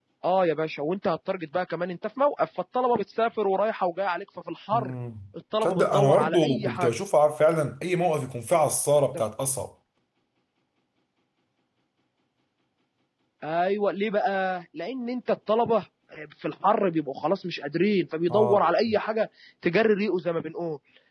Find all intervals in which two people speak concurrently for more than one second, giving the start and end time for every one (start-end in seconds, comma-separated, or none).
5.6-6.9